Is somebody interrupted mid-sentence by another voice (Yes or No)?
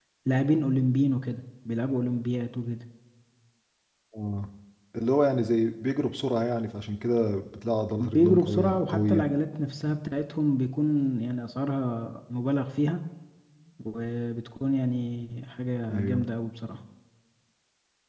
Yes